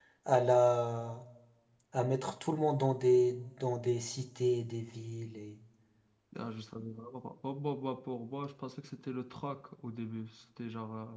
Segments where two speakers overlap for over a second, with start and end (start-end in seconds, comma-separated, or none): none